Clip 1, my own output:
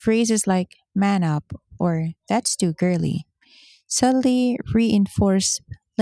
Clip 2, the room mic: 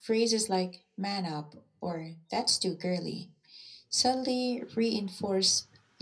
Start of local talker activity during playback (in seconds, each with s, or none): none